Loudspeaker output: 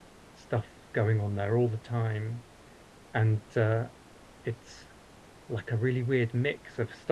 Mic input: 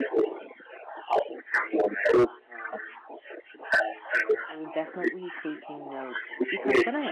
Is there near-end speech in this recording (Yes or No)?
Yes